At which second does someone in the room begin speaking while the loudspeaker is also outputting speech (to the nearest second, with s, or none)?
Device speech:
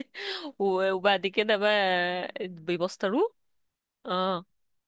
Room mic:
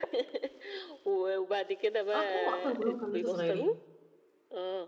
2 s